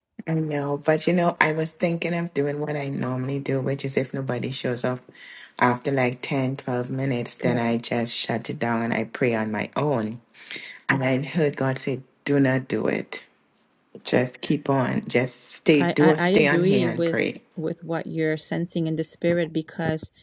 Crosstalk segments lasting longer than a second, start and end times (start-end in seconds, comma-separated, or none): 15.8-17.2